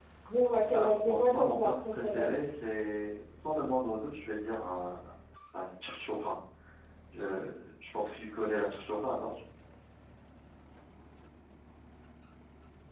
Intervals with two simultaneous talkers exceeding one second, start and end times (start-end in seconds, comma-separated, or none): 0.7-2.3